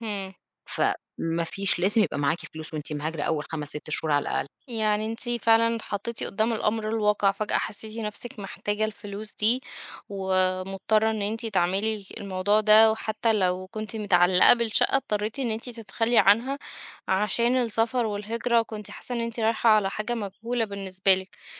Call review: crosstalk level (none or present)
none